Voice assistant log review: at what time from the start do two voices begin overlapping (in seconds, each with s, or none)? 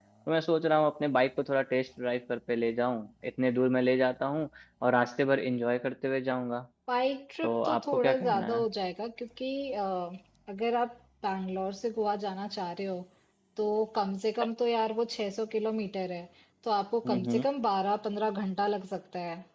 7.4 s